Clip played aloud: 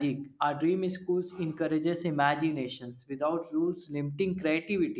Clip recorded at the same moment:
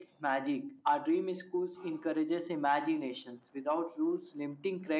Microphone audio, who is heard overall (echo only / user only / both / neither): echo only